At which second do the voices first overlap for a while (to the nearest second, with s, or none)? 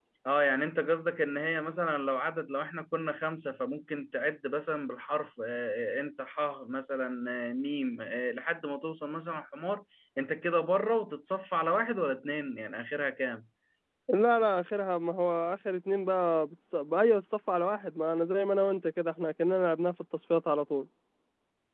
none